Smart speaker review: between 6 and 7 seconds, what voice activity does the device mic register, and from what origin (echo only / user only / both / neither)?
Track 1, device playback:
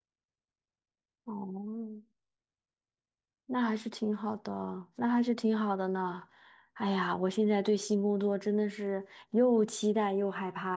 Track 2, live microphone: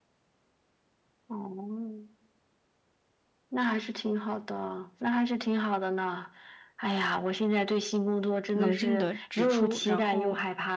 echo only